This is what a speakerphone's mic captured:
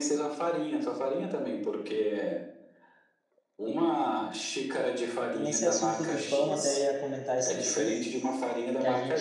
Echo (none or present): present